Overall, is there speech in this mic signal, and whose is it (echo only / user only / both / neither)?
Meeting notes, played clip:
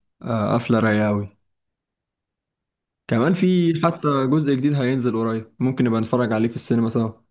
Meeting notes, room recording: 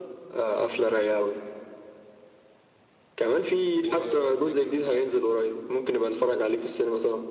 both